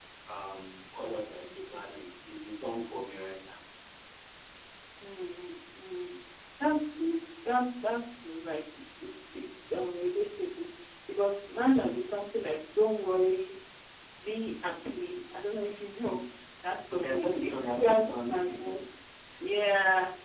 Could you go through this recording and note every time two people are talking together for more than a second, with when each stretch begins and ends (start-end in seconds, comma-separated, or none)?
16.9-18.8